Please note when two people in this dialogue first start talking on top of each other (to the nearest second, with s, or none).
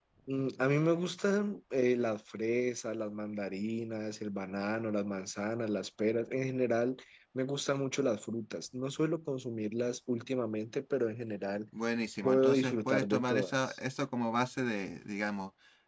12 s